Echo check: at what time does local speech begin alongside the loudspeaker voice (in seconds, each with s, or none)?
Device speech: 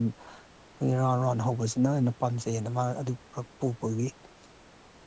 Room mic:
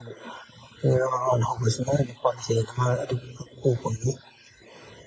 none